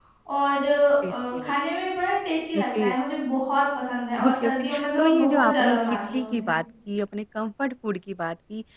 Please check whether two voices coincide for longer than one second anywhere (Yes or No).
Yes